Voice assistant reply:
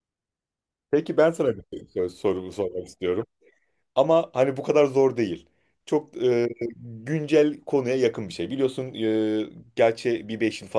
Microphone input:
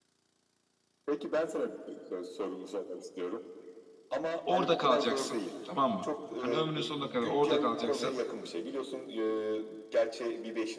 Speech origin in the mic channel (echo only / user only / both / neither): both